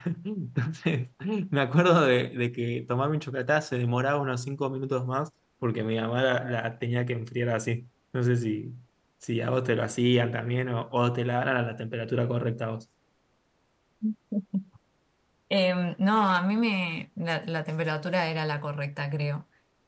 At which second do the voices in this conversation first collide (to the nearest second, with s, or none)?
none